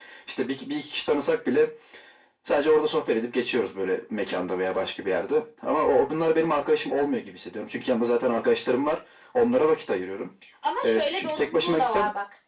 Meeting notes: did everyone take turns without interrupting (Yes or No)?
No